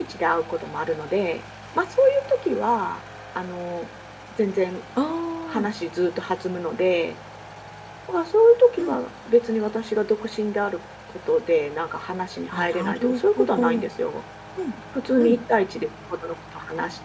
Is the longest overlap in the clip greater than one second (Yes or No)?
Yes